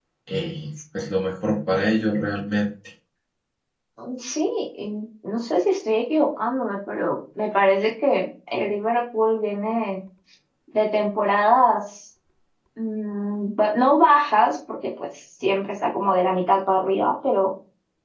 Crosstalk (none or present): none